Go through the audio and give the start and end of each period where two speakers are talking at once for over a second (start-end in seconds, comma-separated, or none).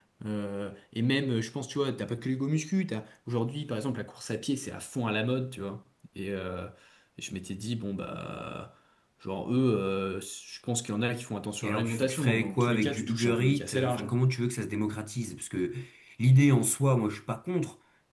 11.6-14.1